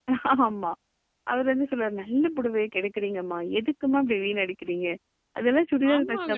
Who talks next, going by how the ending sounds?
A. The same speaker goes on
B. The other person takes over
B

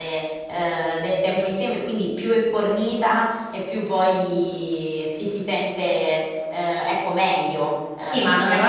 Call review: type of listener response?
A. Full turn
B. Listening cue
A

